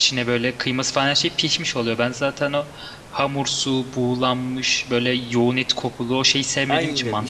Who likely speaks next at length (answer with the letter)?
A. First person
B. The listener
B